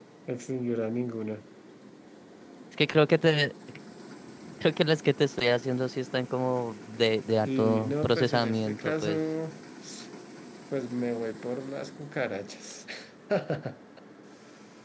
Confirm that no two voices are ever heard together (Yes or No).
No